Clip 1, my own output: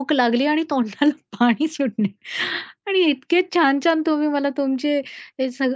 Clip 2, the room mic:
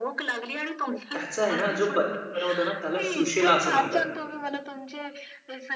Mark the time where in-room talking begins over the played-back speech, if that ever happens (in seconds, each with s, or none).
1.1 s